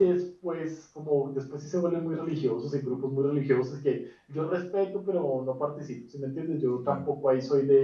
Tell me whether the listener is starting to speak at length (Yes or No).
No